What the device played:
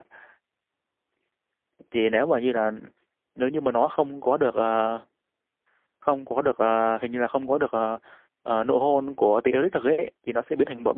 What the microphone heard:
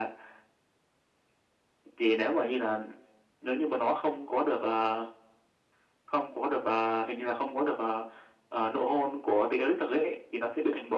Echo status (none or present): present